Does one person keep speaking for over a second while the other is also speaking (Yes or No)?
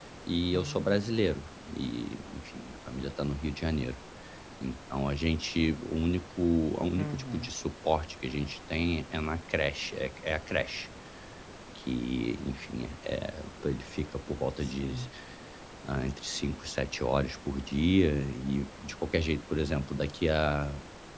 No